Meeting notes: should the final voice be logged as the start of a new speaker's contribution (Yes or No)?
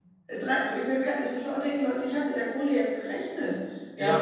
Yes